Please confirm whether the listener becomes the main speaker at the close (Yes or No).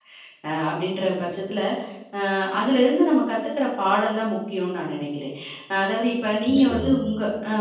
No